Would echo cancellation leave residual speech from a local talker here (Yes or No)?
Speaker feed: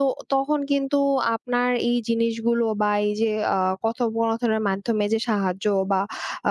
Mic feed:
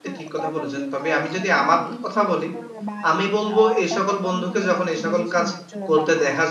Yes